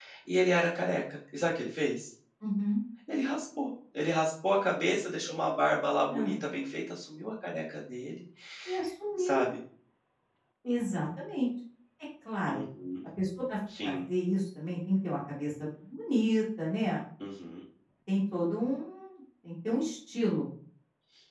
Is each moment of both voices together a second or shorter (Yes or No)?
Yes